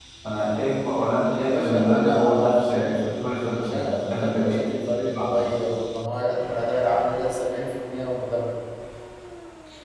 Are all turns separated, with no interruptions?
No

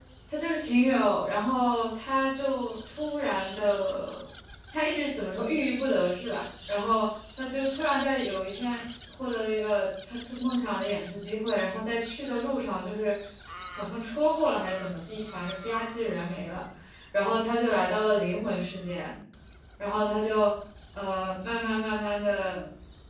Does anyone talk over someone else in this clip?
No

